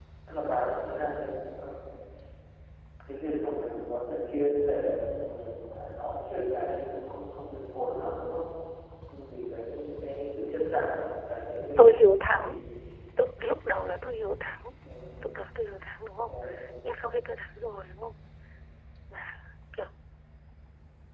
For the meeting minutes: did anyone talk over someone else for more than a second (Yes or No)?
No